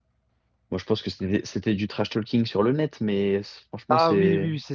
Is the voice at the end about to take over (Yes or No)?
Yes